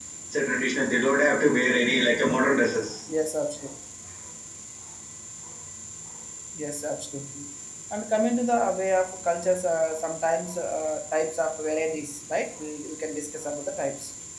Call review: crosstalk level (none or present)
none